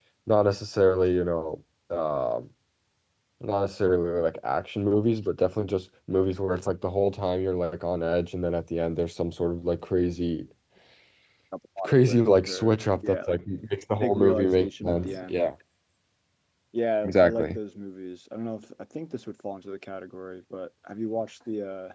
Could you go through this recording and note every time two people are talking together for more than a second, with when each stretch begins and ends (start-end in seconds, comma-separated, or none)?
11.8-13.3, 14.0-15.4